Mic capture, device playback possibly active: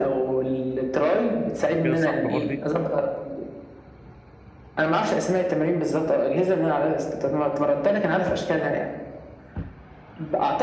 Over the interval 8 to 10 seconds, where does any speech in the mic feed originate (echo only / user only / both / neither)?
echo only